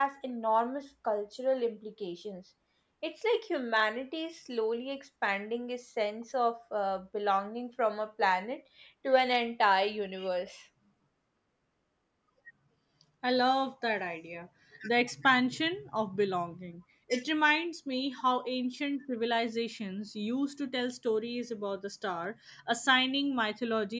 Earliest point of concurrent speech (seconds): none

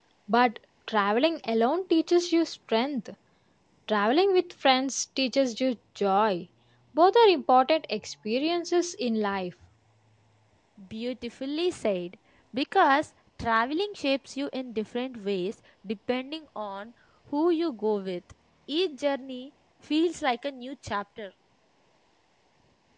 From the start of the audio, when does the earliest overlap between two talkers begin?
none

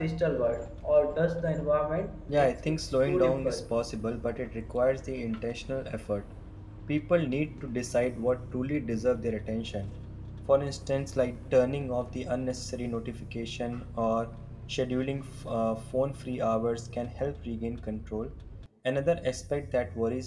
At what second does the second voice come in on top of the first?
2.3 s

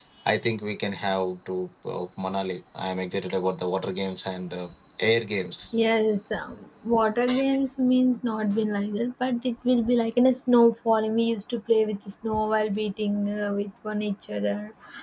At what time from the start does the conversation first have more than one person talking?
none

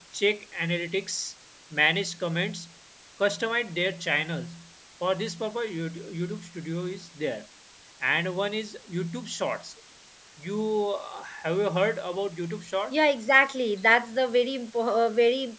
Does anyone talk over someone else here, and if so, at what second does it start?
none

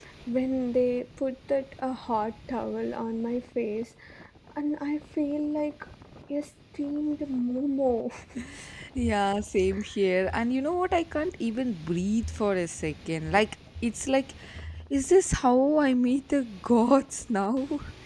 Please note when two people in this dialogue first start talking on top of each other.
none

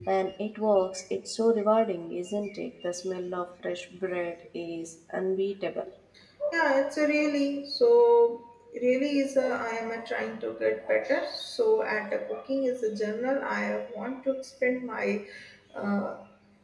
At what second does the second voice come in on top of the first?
none

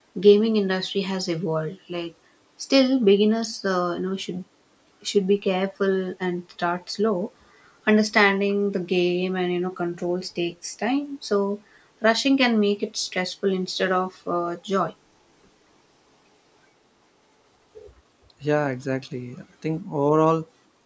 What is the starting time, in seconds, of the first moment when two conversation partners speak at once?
none

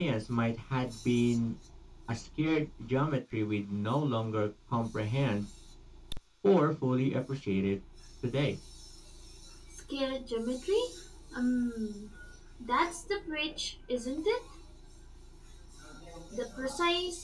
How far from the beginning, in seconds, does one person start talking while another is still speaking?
none

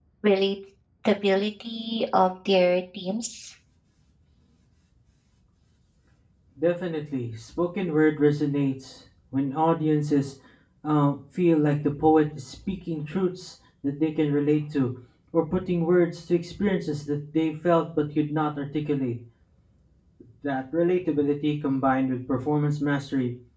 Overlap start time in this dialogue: none

